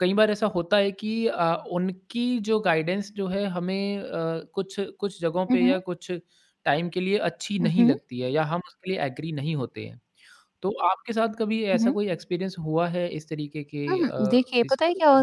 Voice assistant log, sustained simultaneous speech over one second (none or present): present